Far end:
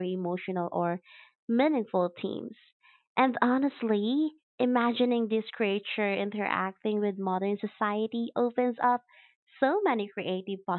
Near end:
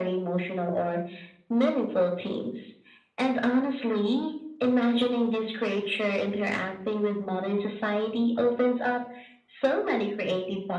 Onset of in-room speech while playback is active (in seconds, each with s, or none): none